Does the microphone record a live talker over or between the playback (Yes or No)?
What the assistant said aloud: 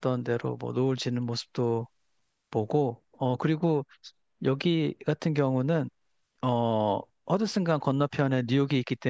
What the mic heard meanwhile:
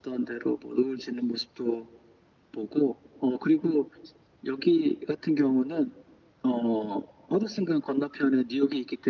No